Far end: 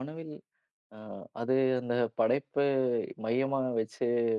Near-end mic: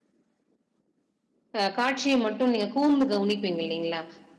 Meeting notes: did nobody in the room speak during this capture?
No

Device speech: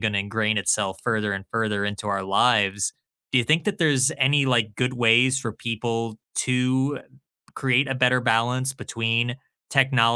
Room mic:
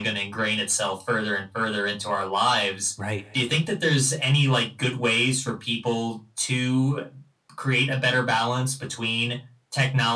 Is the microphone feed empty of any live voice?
No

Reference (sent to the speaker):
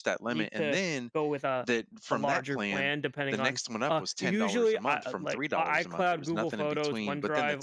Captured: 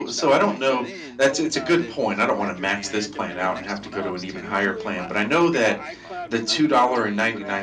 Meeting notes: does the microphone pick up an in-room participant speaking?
Yes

